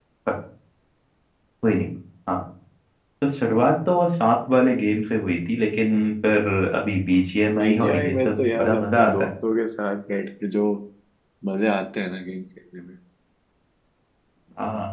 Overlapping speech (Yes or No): Yes